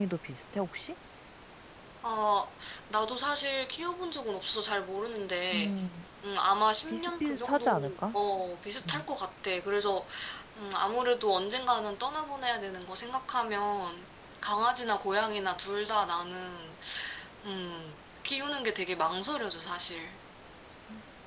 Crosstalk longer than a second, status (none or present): present